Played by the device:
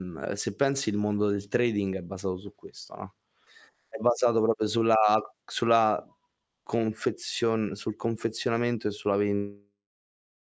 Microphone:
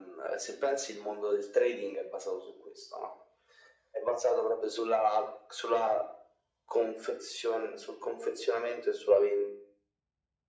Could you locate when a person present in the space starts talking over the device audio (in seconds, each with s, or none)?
none